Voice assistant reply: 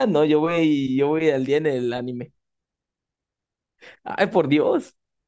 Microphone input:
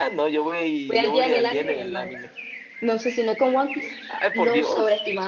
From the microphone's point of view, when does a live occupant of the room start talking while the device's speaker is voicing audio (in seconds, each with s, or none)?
0.9 s